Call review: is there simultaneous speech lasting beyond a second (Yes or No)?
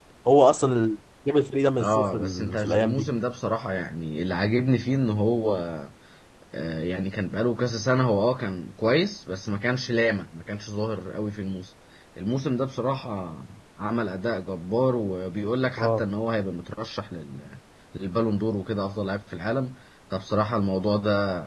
Yes